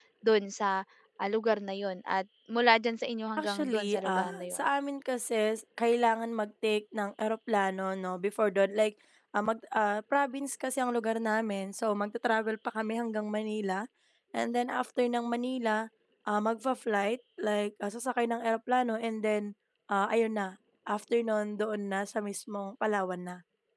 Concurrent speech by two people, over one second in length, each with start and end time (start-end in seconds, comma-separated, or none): 3.4-4.6